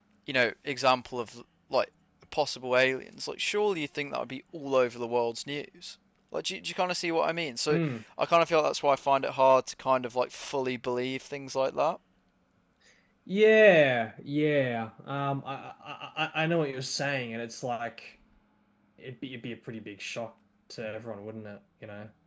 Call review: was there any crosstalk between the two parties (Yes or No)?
No